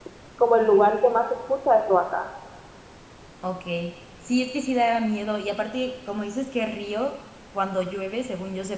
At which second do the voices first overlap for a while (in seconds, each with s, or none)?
none